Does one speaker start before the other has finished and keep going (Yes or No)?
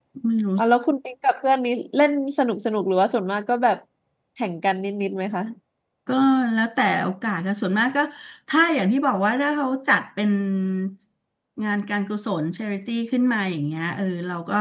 No